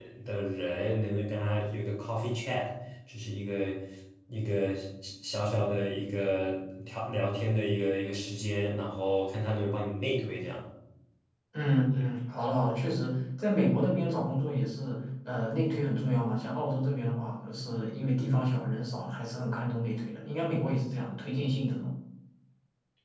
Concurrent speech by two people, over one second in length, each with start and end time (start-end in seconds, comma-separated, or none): none